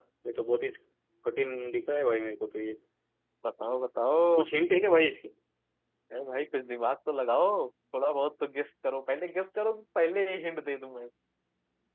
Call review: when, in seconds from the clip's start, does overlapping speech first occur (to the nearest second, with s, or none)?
none